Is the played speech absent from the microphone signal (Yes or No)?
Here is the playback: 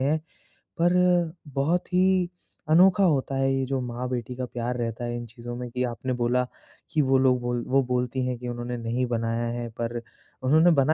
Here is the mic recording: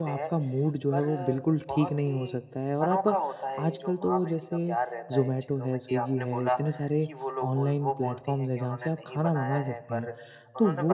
No